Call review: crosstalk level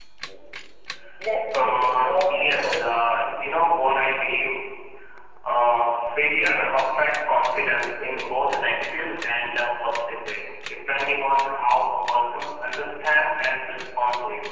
present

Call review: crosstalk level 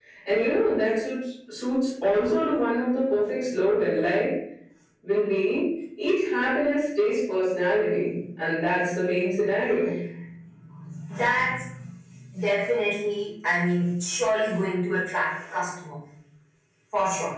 none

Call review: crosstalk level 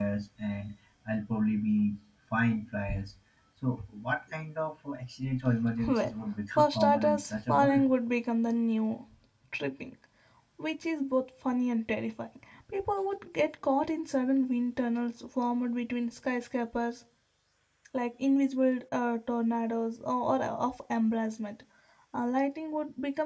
present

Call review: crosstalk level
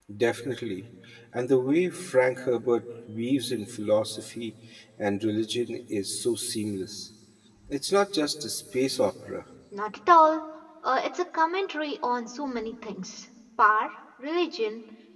none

